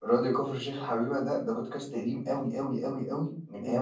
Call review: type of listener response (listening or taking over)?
listening